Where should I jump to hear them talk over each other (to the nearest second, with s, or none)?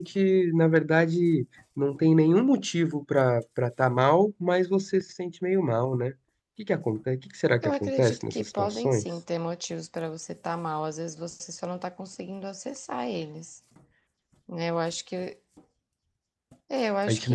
8 s